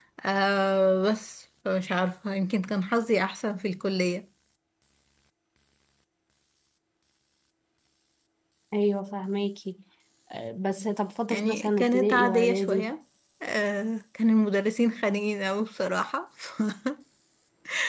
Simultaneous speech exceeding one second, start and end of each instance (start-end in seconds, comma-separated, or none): 11.3-12.9